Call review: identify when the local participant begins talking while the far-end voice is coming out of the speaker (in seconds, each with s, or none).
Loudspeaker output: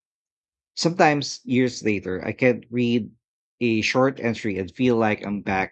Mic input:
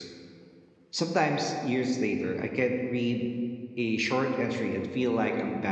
none